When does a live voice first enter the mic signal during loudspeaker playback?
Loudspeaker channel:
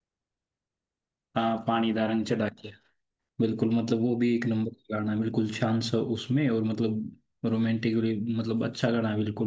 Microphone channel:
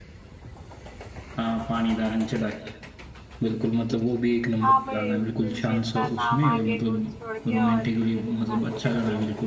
4.6 s

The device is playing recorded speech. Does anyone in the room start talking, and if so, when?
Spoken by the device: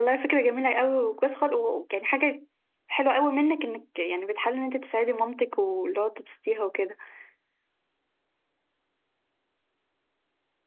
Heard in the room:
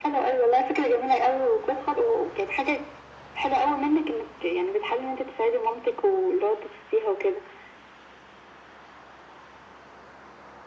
none

